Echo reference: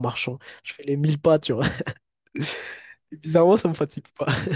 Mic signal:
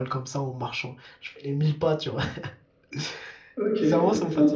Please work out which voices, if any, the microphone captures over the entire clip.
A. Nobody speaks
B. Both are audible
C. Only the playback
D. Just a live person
B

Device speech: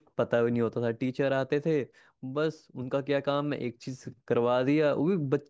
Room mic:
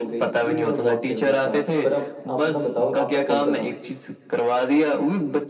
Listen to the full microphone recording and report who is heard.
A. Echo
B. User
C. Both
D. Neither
C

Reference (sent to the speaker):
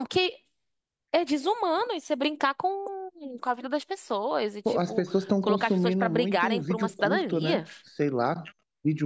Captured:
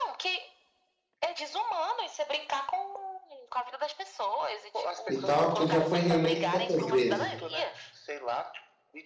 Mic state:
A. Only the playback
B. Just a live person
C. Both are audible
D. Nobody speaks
C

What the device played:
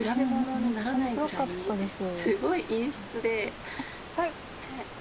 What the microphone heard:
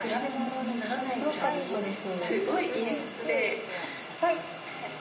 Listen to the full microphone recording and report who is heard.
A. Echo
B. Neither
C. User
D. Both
D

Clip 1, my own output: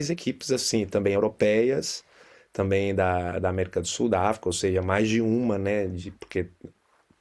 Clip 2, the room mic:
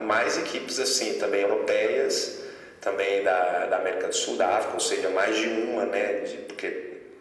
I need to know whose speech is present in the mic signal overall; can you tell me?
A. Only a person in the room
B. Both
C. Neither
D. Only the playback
D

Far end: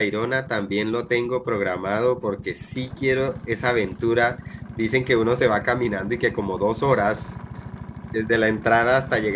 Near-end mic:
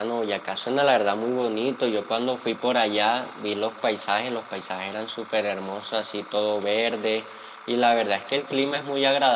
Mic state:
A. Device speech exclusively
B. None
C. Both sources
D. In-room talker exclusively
D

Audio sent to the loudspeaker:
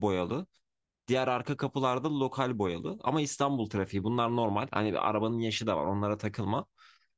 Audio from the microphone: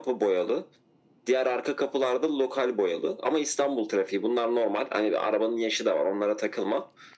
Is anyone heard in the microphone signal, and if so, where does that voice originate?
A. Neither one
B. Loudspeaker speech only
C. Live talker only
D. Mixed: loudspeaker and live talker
B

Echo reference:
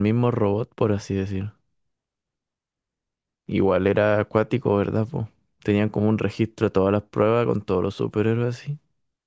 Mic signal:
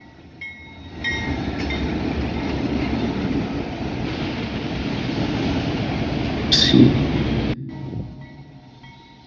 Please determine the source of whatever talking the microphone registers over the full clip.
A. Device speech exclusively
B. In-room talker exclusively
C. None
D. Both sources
B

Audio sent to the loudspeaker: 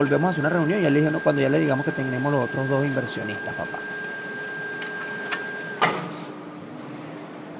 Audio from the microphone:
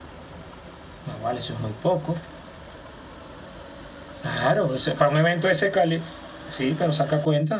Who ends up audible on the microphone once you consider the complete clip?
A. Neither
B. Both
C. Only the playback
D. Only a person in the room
D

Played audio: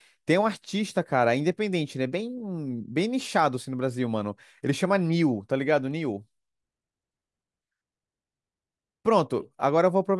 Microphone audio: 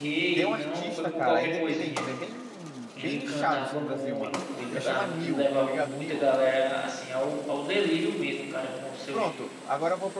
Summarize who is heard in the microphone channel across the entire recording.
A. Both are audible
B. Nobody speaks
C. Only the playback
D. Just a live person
A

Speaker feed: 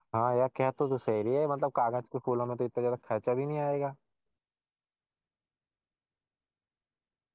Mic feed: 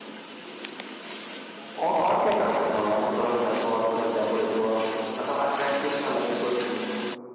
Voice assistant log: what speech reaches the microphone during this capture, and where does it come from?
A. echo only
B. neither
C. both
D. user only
D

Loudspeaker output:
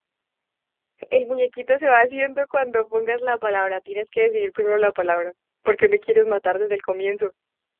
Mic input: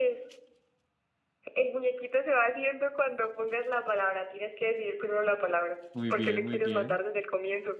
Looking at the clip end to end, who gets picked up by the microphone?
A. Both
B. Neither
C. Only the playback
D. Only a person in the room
A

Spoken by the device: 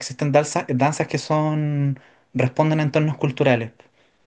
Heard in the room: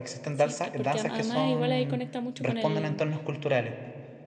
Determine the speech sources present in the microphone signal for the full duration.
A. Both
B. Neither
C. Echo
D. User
A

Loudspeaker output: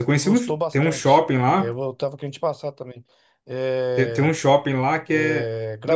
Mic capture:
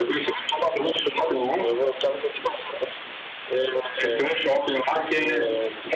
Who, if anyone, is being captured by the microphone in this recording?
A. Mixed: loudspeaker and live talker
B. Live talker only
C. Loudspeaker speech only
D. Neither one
C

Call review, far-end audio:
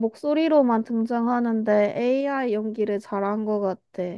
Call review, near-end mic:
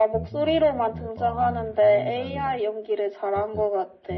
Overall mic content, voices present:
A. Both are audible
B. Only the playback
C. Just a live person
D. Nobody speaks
A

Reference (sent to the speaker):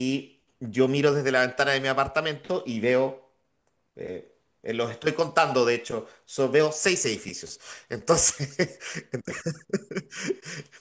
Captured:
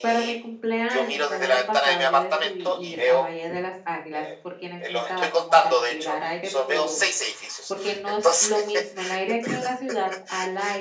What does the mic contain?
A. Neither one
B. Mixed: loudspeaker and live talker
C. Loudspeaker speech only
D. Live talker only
B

